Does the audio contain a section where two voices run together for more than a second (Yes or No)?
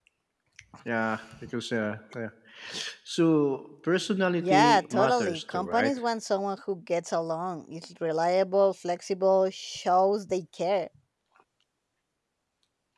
Yes